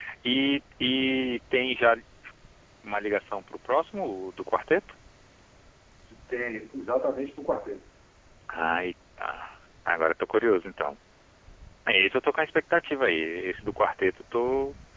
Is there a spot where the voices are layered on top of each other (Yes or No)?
No